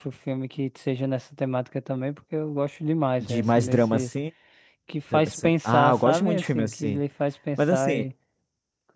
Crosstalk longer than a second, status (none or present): present